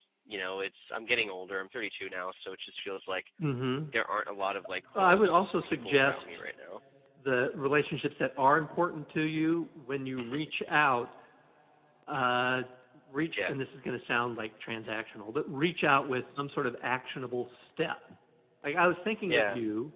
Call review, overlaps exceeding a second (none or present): present